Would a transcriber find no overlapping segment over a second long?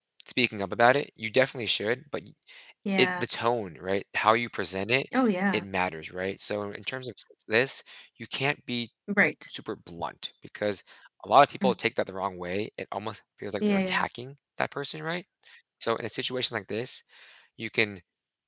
Yes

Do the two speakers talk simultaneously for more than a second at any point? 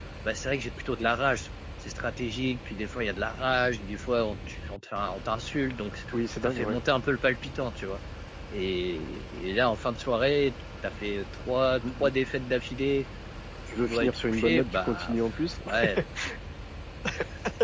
Yes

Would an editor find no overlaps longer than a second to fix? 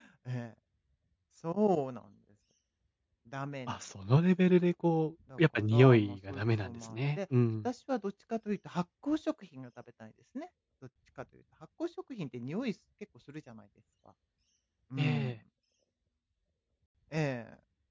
No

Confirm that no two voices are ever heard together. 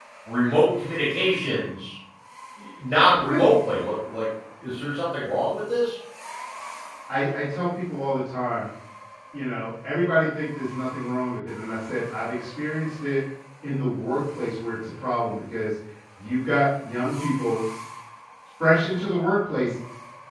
Yes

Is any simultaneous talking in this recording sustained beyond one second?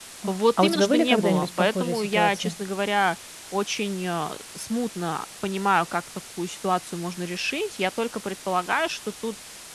Yes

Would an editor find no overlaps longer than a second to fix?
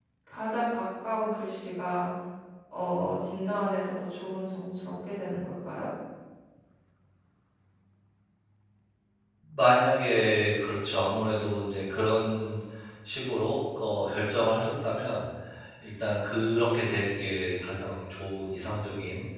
Yes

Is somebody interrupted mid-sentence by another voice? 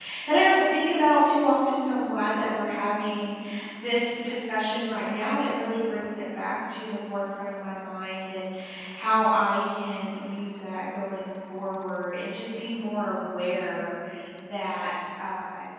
No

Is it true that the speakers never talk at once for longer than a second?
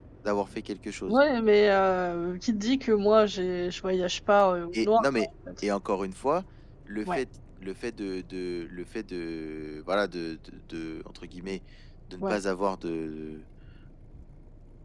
Yes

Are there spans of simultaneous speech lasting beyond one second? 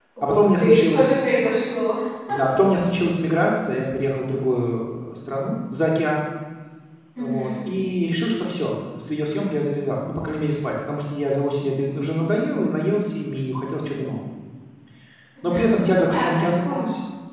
Yes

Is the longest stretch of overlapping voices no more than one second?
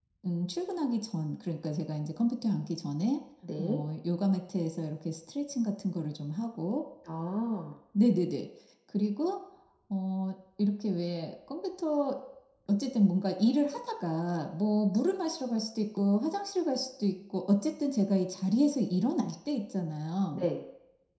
Yes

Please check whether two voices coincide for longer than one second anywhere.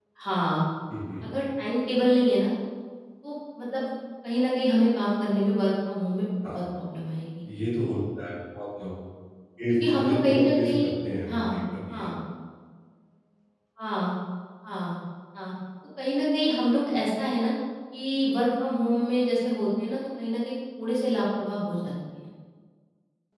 Yes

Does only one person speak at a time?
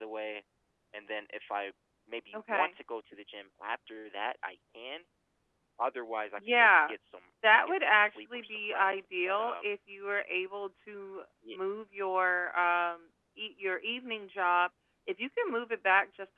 No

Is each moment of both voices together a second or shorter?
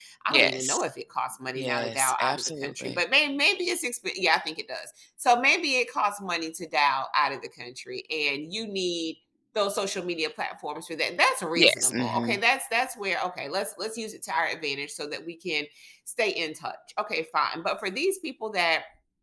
No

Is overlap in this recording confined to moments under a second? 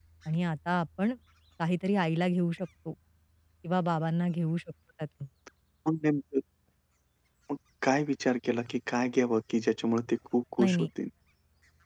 Yes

